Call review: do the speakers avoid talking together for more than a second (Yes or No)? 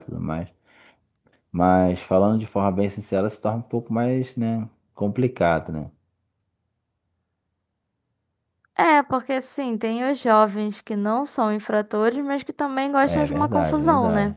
No